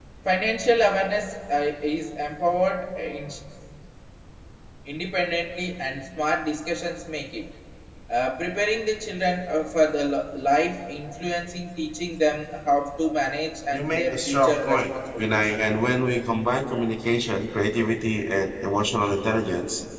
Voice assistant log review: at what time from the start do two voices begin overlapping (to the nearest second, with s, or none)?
14 s